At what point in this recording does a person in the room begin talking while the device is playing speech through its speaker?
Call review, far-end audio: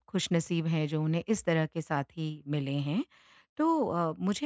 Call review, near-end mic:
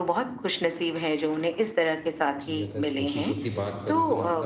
2.4 s

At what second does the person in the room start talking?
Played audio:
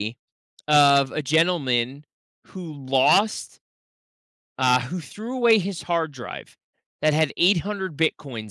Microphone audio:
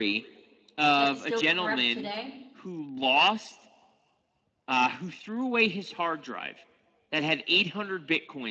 1.0 s

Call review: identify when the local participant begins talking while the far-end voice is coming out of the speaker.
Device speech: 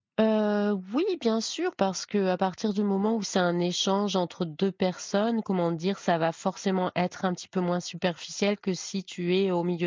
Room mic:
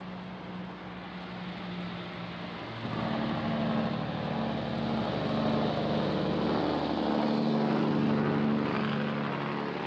none

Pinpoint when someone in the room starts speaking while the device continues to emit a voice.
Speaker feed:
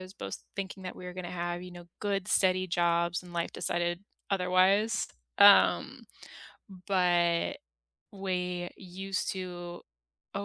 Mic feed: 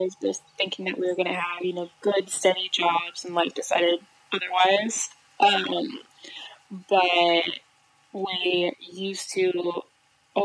none

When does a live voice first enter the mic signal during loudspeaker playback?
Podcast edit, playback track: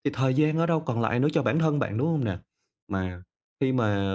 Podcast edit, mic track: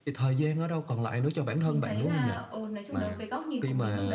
1.6 s

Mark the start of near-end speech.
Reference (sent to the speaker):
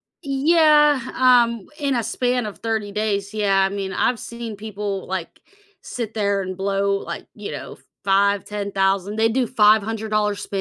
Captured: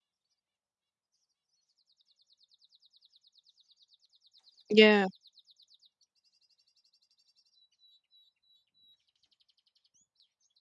4.7 s

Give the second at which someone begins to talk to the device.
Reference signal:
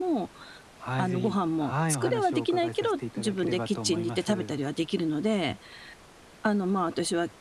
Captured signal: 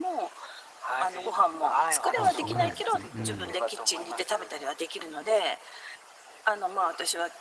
2.1 s

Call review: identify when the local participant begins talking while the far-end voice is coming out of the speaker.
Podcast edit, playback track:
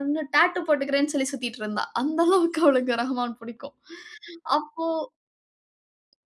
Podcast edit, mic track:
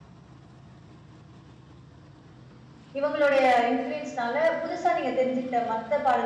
3.0 s

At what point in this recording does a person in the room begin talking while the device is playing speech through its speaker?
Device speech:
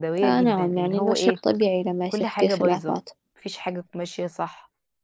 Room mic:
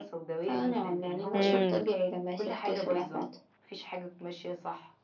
1.3 s

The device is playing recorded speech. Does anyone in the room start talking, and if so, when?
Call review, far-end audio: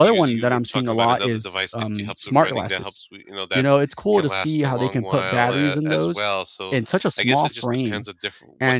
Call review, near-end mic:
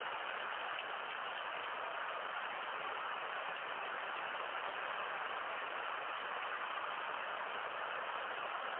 none

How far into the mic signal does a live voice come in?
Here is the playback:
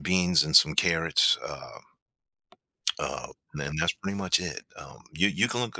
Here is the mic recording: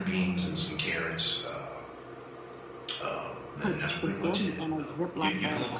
3.6 s

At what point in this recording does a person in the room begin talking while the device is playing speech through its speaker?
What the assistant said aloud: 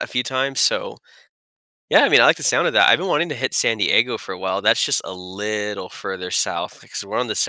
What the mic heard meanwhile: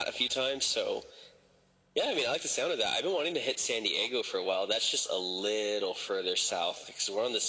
none

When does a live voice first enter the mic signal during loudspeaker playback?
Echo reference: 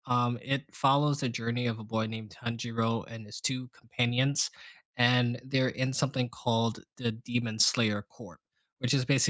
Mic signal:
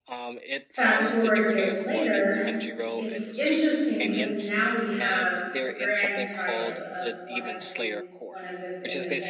0.7 s

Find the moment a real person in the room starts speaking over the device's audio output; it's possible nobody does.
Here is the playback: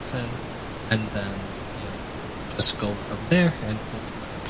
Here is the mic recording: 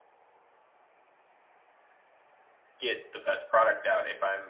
2.8 s

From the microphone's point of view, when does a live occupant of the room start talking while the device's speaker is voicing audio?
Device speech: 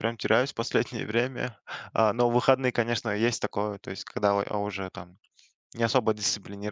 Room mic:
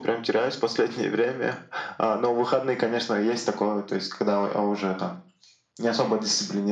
none

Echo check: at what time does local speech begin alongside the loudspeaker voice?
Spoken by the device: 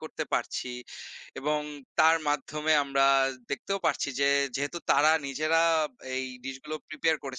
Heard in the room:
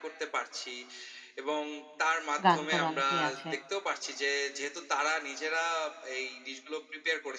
2.5 s

